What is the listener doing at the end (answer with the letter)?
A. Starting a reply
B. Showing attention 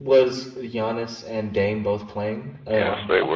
A